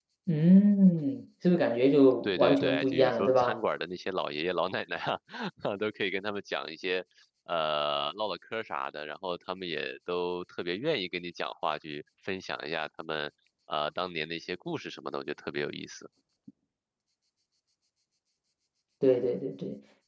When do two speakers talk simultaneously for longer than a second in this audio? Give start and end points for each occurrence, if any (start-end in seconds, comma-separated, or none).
2.2-3.6